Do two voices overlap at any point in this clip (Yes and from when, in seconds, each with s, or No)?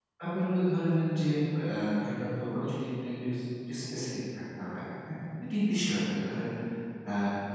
No